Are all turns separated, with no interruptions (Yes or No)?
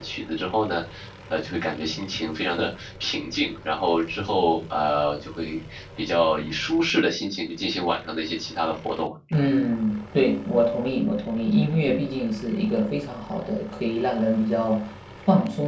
Yes